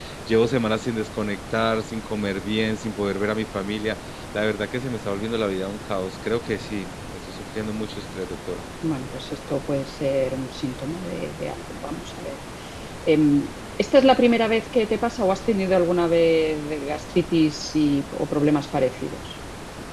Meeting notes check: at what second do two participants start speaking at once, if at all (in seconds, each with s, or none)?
none